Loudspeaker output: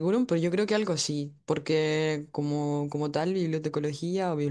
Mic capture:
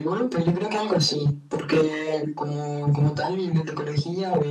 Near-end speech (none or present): none